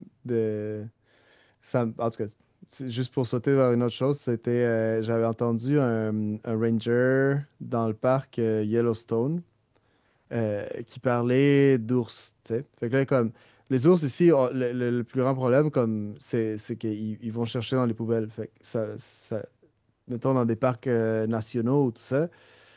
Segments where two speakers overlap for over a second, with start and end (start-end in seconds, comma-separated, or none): none